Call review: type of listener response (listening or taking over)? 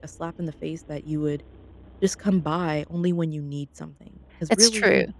listening